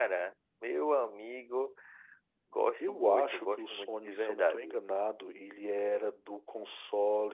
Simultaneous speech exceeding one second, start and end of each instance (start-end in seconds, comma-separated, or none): 2.9-4.7